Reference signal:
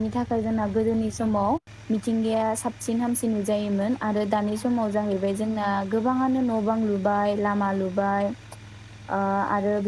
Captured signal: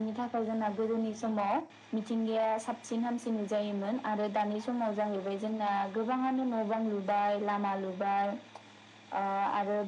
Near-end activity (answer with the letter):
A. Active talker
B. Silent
B